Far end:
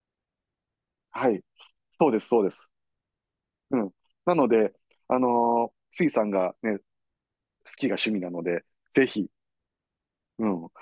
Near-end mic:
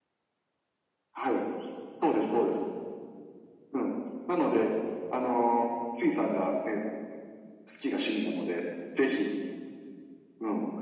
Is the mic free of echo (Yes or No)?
No